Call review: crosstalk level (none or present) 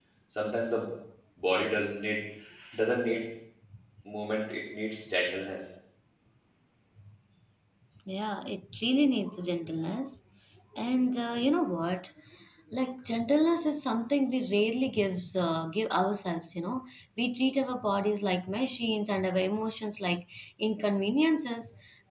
none